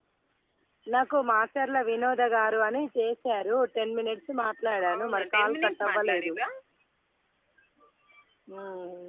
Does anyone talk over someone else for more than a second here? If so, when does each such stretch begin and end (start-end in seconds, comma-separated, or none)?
5.0-6.3